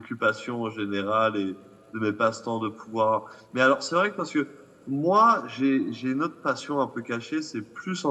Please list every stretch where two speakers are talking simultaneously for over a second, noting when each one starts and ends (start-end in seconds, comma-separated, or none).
none